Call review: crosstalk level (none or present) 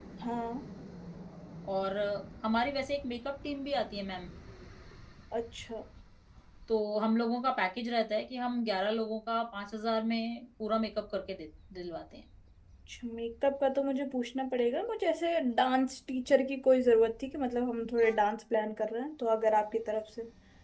none